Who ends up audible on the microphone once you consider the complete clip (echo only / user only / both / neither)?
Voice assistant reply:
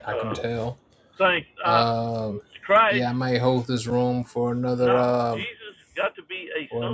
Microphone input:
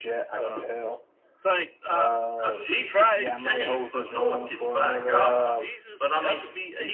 both